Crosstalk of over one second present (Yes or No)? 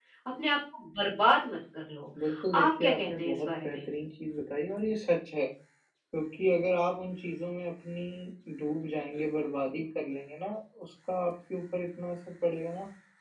Yes